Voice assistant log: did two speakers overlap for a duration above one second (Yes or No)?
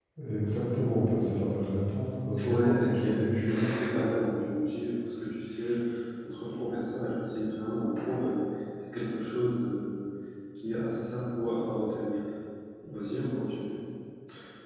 Yes